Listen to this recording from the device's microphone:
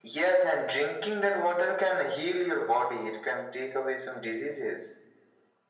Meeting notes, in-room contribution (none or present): none